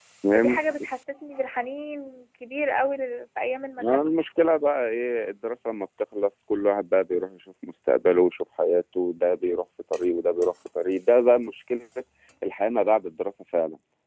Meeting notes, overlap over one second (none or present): none